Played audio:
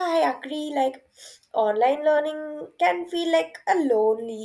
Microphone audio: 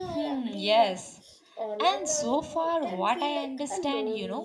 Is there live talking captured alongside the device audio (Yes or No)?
Yes